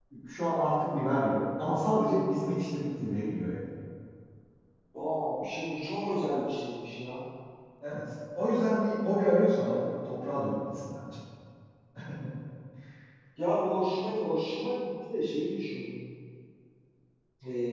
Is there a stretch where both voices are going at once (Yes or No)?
No